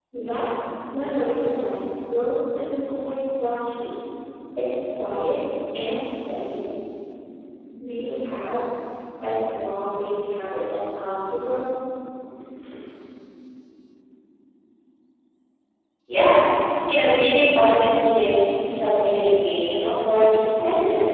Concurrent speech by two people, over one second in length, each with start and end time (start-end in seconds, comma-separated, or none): none